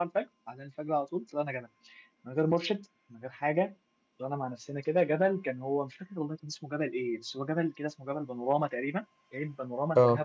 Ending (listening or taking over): listening